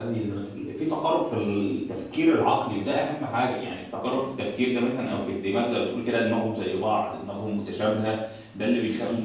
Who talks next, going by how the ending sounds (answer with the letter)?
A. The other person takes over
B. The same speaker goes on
B